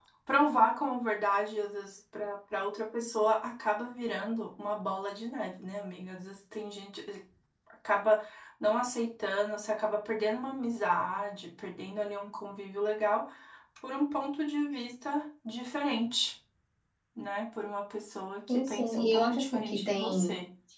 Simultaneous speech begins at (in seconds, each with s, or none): 18.5 s